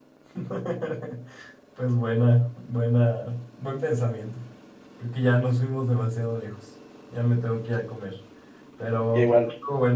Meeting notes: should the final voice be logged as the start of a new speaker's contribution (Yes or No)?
No